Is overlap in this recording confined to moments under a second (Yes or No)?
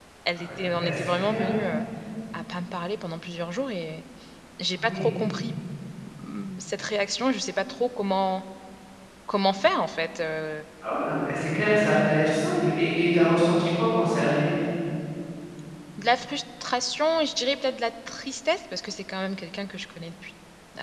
No